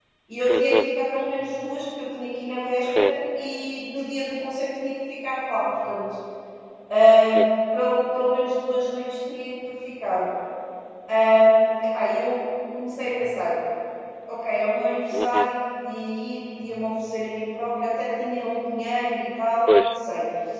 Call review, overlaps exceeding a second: none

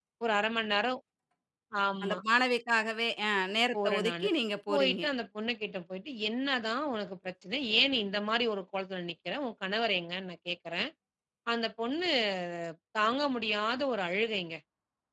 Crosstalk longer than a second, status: none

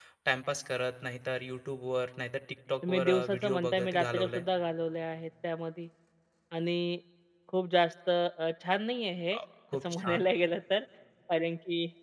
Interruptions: present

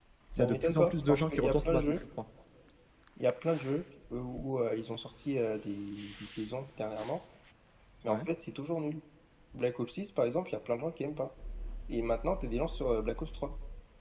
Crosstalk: present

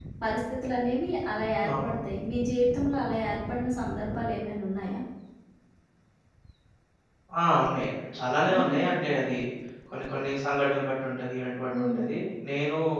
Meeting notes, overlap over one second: none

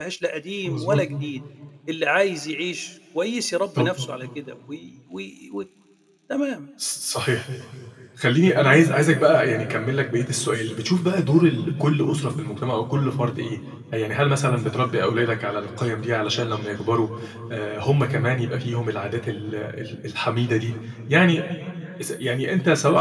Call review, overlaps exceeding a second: none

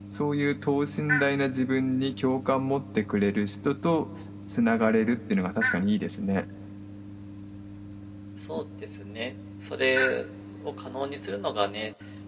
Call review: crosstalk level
none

